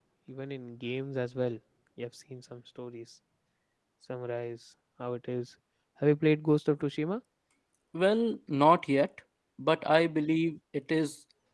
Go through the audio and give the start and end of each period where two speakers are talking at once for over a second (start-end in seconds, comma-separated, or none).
none